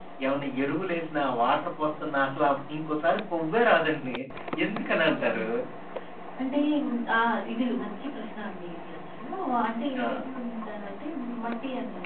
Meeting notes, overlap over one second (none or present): none